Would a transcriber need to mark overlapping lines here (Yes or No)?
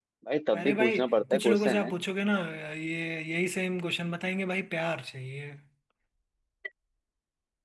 Yes